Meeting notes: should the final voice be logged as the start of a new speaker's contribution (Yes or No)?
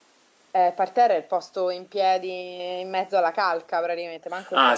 Yes